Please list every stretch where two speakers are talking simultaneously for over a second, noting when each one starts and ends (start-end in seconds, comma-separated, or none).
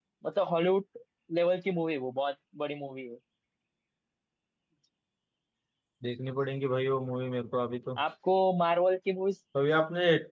none